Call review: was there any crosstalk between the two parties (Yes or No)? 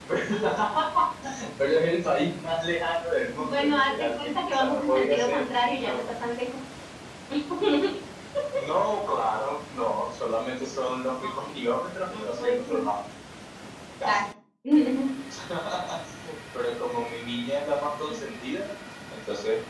Yes